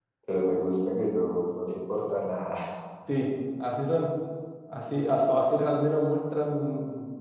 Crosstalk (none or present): none